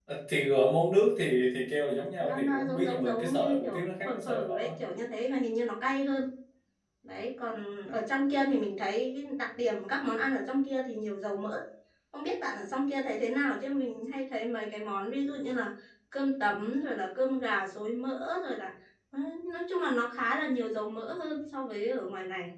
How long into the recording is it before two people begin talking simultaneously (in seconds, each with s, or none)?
2.2 s